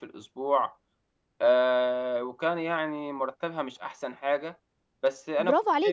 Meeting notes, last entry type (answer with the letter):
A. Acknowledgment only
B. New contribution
B